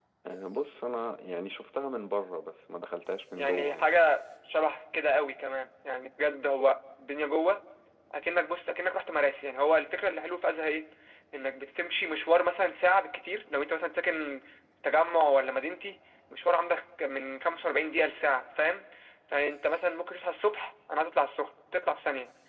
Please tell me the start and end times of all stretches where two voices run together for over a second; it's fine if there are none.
none

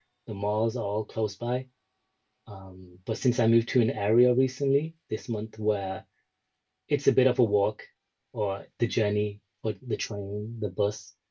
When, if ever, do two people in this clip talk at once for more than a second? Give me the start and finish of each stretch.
none

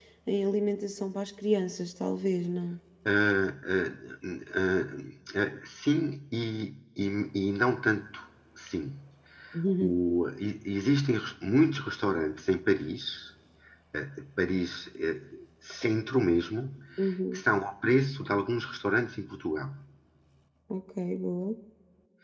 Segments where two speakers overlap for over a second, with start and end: none

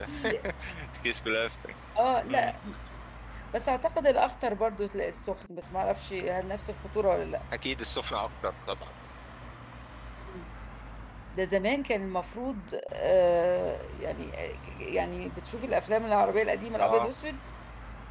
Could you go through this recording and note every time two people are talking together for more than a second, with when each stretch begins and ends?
none

